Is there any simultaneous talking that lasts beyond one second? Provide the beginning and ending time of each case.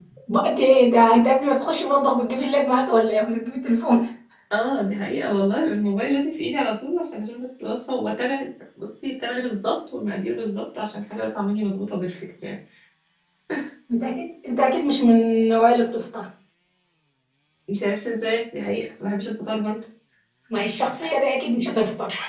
none

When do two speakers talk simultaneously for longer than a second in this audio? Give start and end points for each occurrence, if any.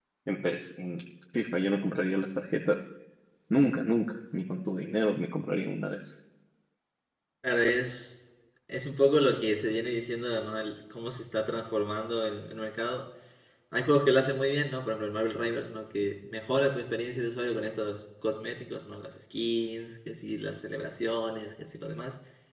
none

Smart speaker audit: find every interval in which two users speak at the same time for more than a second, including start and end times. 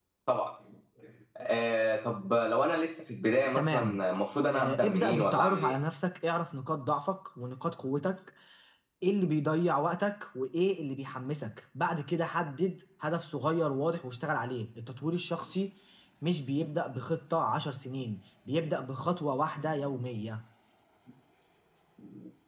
4.5-5.7

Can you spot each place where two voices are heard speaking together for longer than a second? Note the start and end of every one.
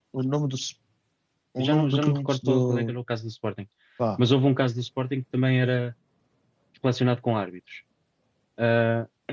1.6-3.0

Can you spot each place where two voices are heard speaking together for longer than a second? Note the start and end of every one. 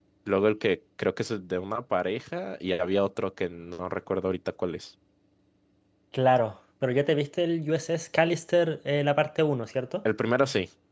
none

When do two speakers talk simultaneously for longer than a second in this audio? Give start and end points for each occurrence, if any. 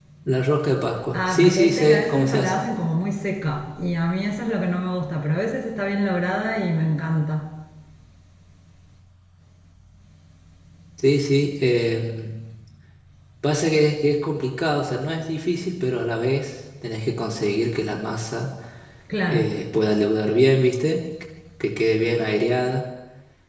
1.1-2.6

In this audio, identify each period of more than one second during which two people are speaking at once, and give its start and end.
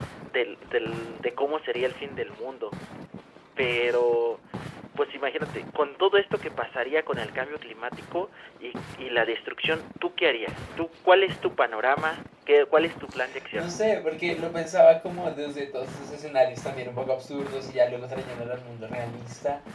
none

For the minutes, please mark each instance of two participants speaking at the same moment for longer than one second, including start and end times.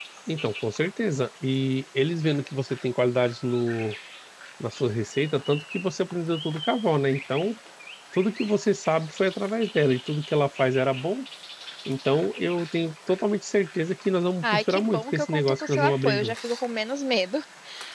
14.4-16.6

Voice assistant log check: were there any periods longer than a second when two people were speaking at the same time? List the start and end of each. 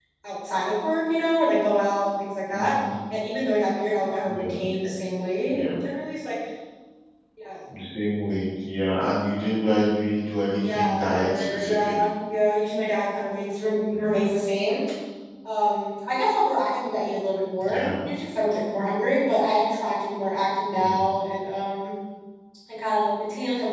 10.6-11.9

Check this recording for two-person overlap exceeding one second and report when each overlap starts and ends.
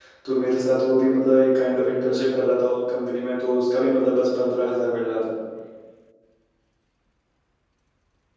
none

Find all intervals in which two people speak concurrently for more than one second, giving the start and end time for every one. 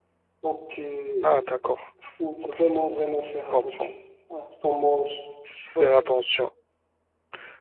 none

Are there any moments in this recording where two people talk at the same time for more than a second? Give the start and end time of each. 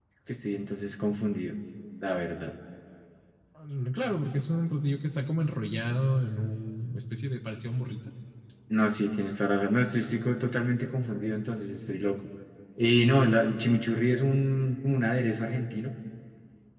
none

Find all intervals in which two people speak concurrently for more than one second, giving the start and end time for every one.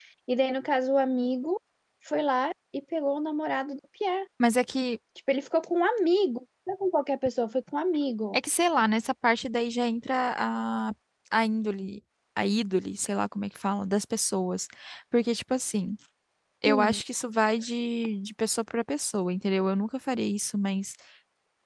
none

